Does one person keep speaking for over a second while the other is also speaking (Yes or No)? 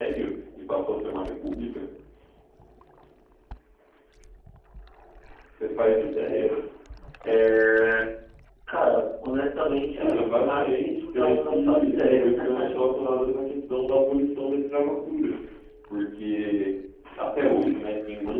Yes